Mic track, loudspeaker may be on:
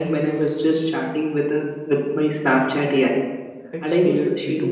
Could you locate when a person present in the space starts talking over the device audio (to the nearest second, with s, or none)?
4 s